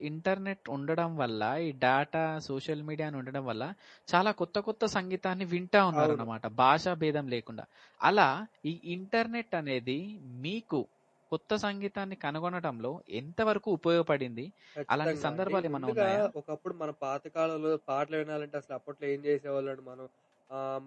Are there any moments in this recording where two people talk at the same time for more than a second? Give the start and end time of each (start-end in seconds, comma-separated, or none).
15.0-16.2